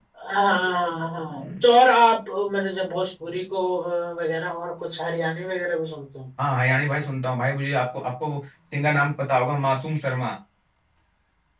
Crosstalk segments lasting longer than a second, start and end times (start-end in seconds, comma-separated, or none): none